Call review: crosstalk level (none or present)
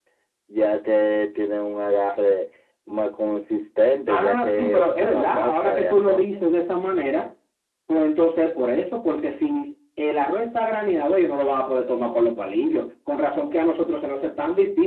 present